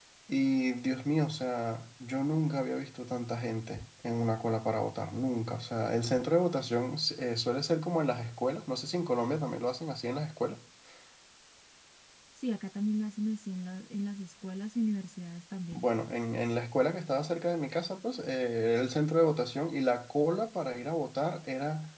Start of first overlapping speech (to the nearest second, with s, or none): none